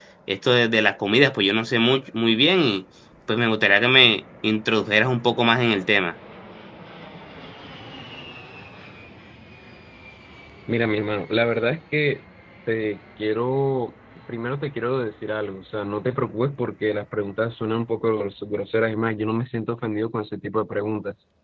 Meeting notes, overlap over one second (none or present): none